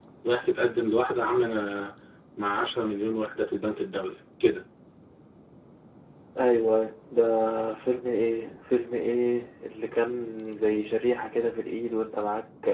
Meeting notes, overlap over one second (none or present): none